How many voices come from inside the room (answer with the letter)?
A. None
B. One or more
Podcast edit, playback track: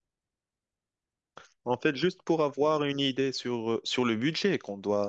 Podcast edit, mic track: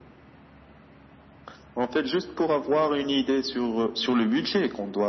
A